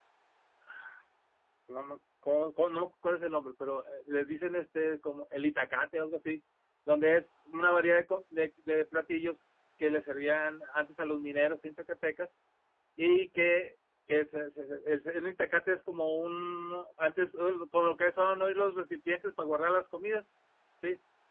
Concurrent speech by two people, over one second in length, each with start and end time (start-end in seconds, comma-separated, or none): none